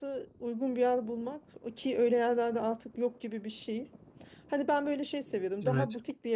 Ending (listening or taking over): listening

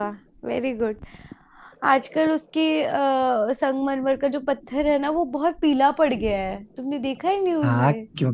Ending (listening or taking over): taking over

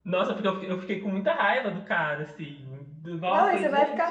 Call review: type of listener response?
taking over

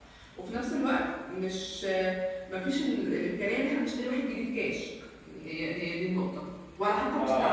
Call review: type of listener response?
listening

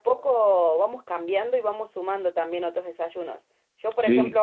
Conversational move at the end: listening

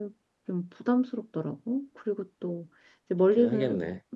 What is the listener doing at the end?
listening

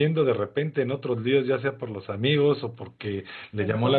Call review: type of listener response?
listening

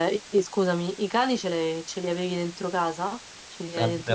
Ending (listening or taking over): taking over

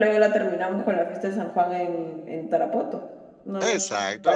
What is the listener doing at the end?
taking over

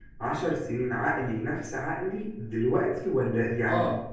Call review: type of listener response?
taking over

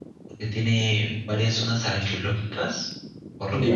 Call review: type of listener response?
listening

